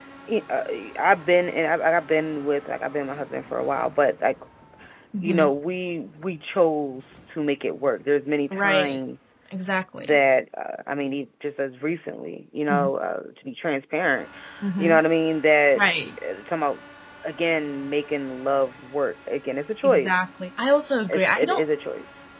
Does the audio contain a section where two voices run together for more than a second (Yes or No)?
No